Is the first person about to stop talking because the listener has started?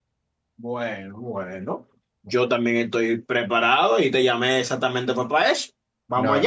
Yes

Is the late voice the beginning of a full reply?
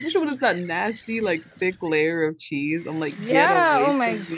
Yes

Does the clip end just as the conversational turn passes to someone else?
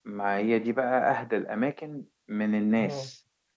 No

